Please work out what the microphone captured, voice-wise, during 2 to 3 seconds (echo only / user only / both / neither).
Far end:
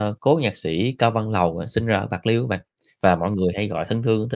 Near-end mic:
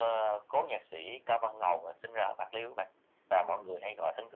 echo only